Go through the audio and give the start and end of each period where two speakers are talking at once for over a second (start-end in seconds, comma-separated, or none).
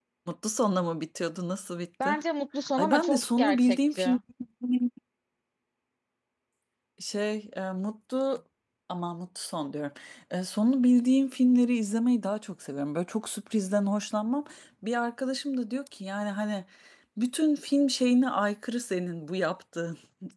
2.8-4.2